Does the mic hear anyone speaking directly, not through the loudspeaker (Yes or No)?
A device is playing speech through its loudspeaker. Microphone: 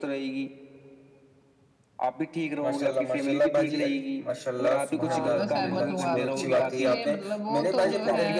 Yes